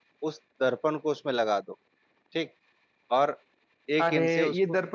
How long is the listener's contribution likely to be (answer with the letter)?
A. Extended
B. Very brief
A